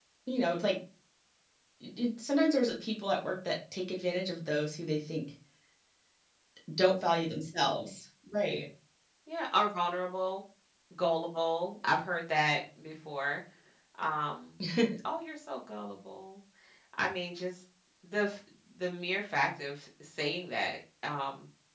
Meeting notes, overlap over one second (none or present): none